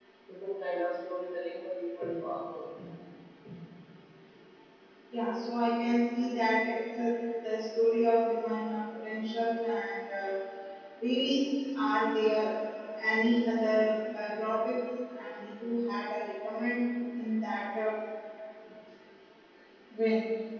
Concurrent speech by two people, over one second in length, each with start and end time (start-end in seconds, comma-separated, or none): none